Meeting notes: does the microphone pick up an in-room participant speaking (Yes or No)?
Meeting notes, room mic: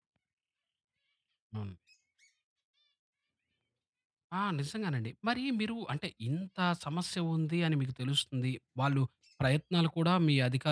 Yes